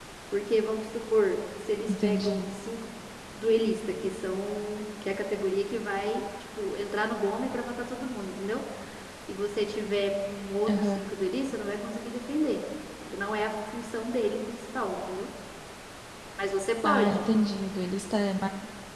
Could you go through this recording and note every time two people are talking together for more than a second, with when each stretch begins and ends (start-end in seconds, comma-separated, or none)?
none